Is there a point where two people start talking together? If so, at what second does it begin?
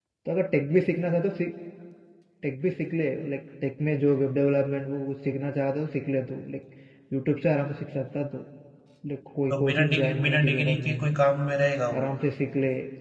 10 s

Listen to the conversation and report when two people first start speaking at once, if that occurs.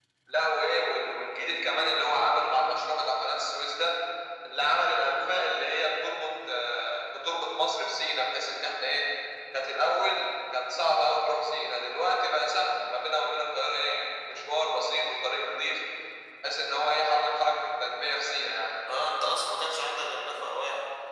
none

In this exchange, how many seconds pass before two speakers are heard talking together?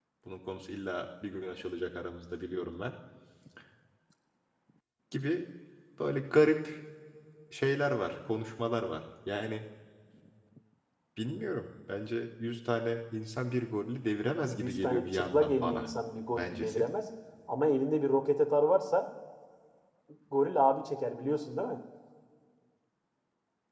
14 s

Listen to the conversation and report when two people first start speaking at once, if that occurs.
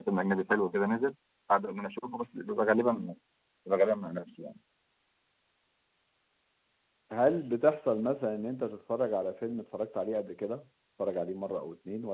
none

